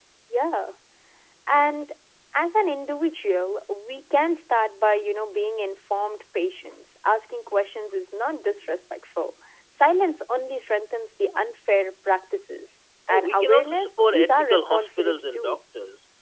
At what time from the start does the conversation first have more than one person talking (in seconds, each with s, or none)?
13.1 s